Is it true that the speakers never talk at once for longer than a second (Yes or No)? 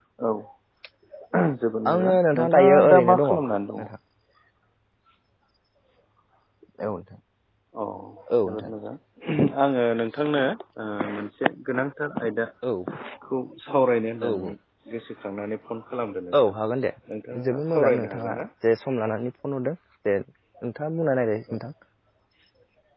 No